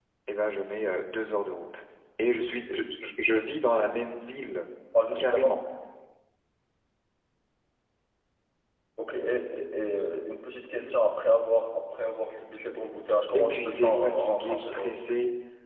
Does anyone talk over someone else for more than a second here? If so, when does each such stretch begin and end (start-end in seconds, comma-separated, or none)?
13.3-14.9